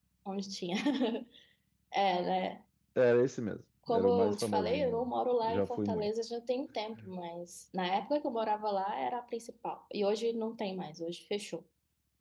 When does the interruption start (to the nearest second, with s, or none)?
4 s